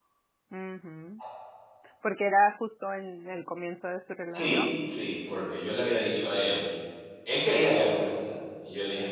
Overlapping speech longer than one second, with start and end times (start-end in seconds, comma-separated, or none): none